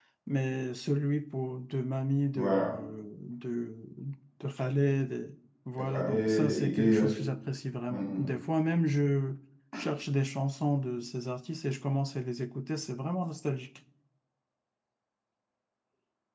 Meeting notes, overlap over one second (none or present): present